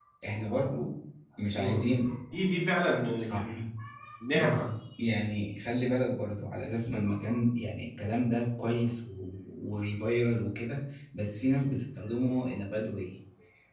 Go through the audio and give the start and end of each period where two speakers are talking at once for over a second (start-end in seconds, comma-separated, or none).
none